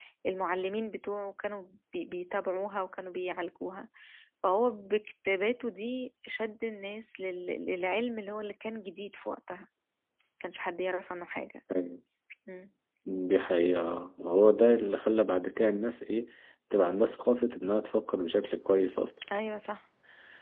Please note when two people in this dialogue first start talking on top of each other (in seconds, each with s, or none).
none